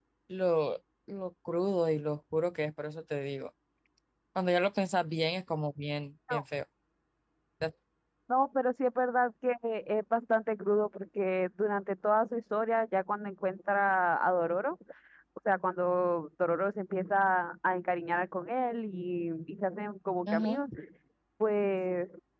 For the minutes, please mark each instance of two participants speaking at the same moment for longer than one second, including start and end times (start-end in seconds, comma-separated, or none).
none